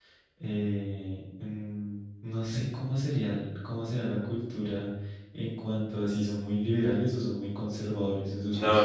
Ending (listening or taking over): taking over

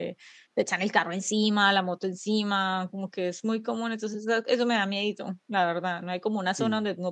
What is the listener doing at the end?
listening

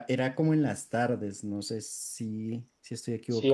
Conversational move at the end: taking over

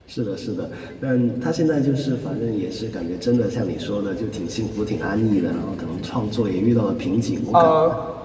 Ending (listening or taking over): taking over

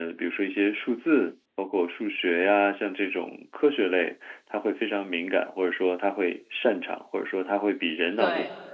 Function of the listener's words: listening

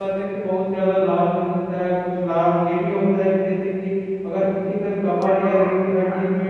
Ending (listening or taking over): listening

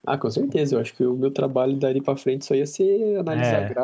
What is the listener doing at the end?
listening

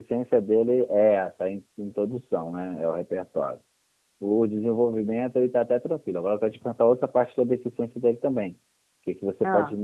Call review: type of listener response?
listening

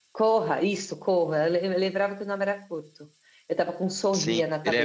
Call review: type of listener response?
taking over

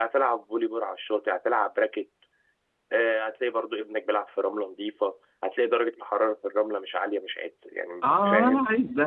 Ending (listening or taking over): taking over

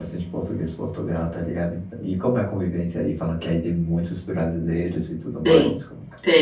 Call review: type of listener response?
taking over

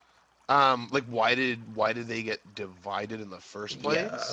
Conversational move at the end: taking over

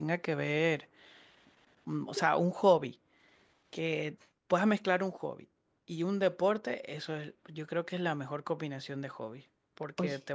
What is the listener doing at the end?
listening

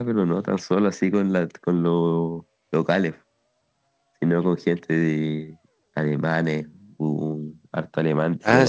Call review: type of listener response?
taking over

